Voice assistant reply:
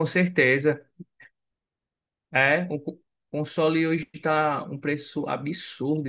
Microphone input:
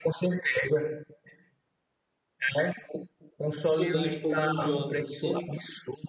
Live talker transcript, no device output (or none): jogar, tipo, alguns jogos, entende?